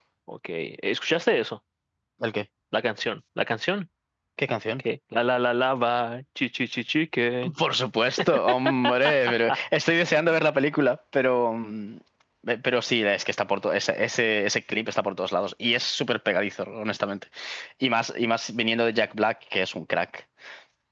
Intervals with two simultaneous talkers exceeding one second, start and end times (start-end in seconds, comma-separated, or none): none